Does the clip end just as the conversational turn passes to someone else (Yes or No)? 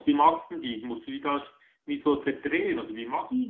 Yes